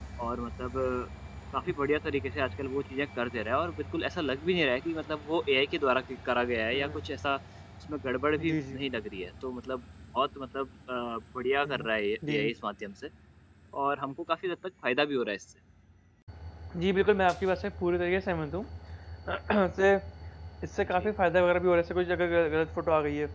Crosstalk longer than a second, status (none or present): none